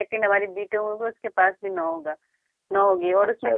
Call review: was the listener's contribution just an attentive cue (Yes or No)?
Yes